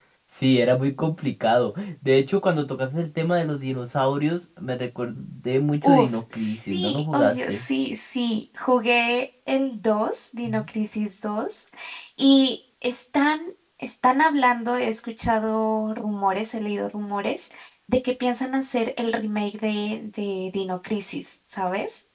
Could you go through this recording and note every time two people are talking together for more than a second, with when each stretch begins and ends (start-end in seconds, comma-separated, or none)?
5.8-7.6